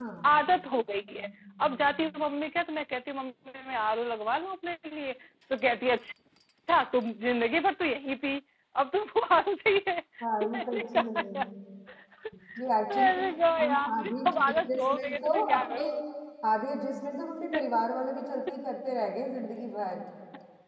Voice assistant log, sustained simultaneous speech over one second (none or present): present